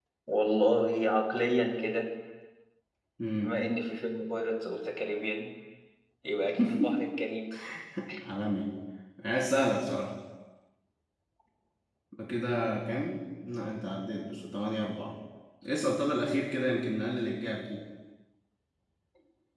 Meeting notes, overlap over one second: none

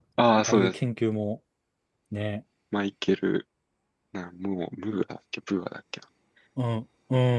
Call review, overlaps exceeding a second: none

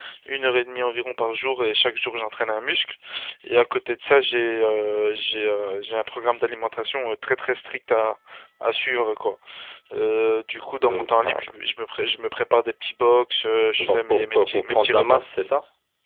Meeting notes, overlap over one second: present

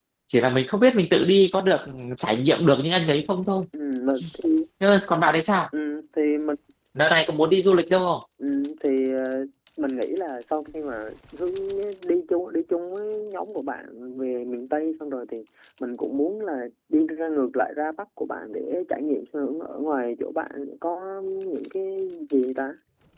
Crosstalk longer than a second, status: none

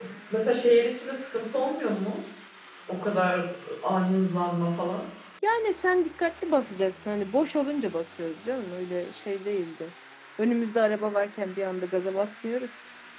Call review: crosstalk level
none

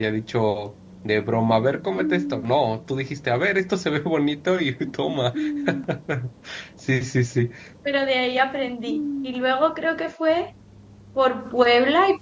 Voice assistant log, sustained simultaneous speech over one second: none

